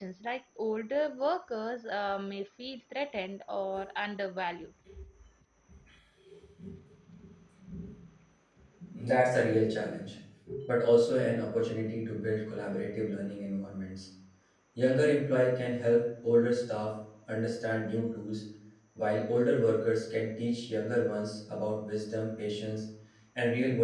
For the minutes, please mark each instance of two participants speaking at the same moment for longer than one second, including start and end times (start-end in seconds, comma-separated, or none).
none